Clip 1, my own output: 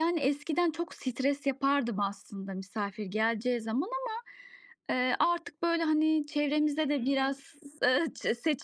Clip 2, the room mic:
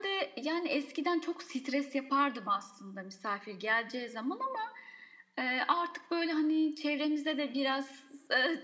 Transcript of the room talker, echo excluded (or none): none